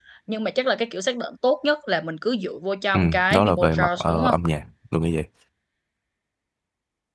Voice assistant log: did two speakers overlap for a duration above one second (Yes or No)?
Yes